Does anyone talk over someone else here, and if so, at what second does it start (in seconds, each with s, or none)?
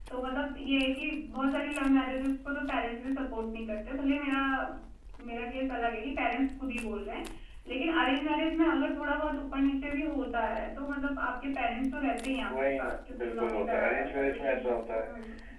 12.5 s